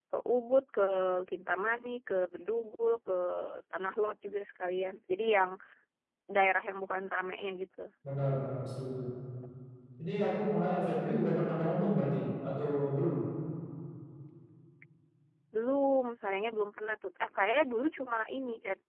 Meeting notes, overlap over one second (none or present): none